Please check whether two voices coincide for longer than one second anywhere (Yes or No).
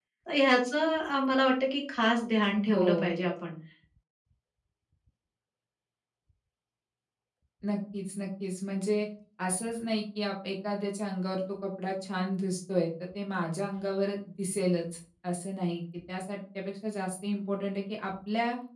No